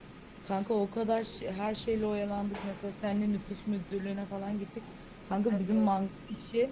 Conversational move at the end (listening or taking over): listening